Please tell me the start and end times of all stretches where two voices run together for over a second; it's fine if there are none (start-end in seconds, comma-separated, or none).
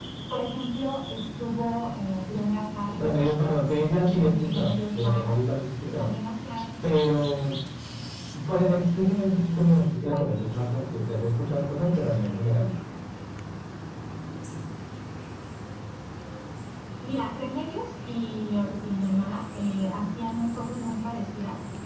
4.1-5.3